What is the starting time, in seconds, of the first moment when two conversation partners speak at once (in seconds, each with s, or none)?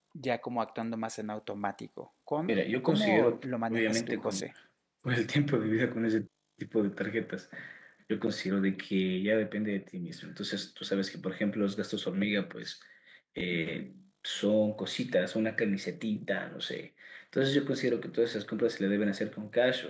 2.5 s